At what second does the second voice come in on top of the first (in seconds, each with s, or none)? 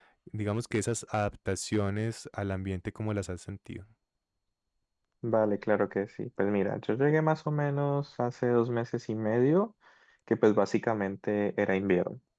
none